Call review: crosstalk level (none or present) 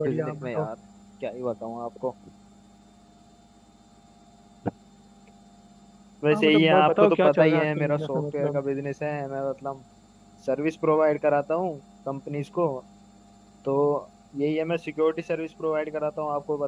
present